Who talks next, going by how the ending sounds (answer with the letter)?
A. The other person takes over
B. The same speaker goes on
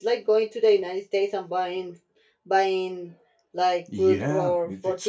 A